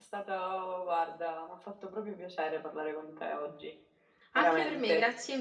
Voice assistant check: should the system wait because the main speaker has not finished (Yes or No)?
No